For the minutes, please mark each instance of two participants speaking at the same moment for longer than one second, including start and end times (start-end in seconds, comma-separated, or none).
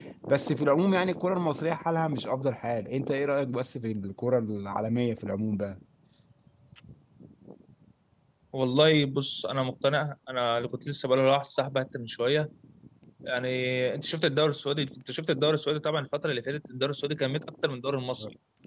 none